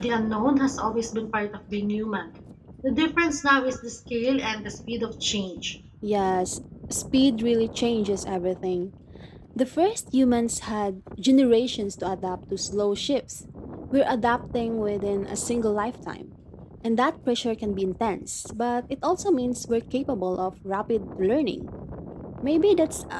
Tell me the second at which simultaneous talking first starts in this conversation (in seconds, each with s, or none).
none